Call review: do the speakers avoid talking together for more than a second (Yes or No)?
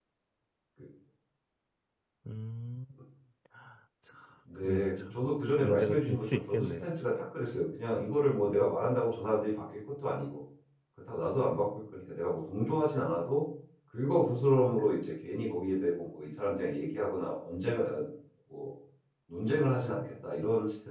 No